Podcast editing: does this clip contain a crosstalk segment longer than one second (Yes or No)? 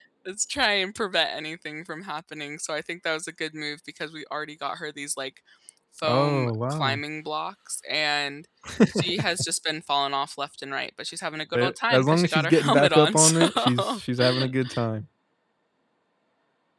Yes